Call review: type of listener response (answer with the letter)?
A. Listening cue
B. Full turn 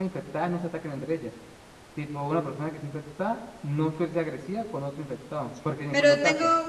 B